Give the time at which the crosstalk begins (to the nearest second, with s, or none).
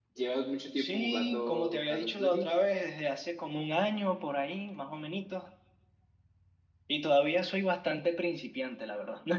1 s